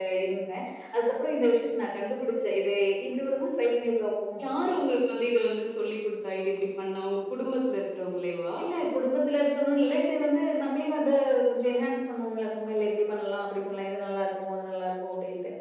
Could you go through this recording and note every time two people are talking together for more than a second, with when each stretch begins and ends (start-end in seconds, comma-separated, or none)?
none